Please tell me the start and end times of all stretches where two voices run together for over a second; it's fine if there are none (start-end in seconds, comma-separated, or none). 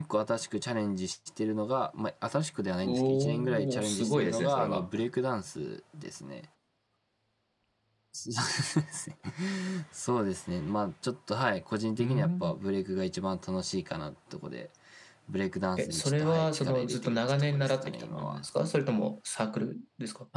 2.8-4.9, 15.8-18.4